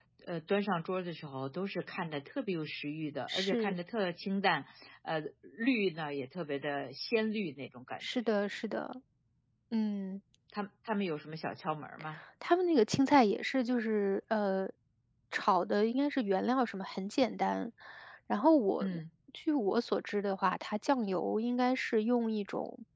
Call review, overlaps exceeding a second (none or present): none